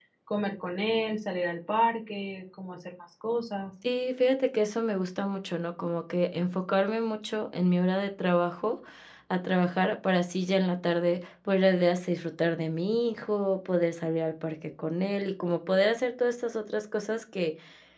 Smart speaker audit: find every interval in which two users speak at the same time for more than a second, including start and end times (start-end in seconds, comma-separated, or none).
none